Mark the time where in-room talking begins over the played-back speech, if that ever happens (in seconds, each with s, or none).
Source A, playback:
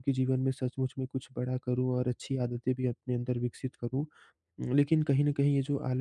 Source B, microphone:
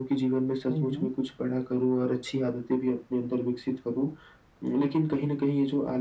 0.7 s